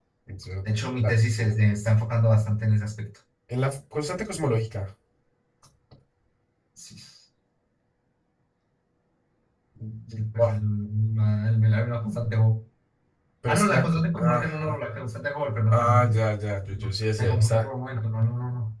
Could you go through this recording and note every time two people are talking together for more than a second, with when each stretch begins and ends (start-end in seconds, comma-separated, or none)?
13.4-14.8